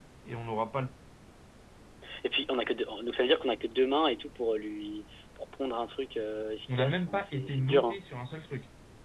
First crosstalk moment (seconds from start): 7 s

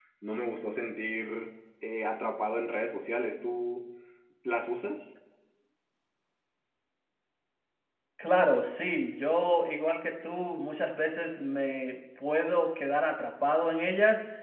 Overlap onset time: none

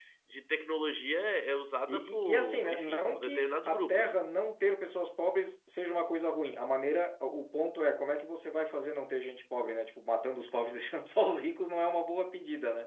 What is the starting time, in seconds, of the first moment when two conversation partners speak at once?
2 s

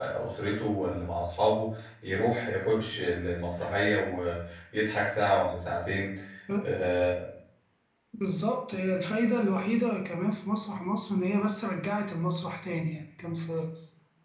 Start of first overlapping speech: none

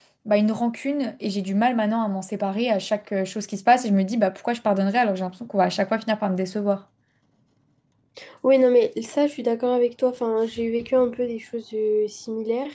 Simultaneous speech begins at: none

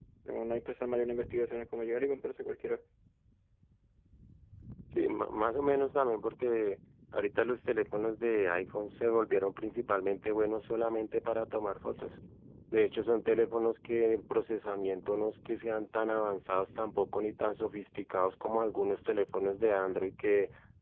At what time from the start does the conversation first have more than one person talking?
none

